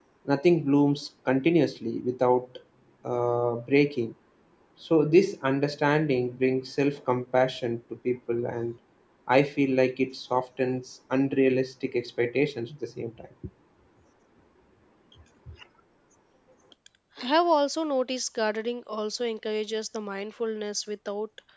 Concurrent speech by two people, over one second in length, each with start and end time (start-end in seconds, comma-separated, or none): none